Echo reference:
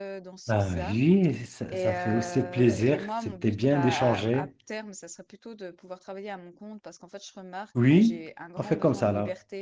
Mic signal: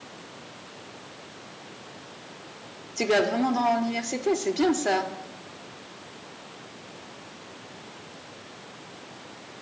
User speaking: Yes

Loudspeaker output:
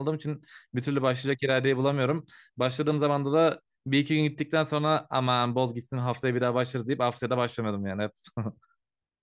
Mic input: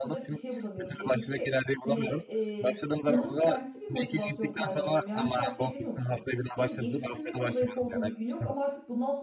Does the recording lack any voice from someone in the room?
No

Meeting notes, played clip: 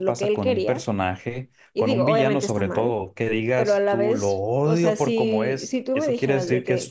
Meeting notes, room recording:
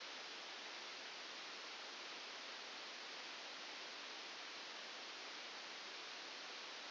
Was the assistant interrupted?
No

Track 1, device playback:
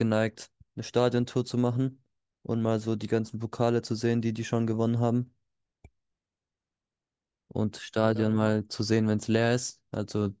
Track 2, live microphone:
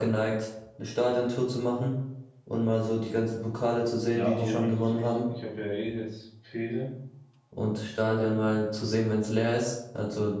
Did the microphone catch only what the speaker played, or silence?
No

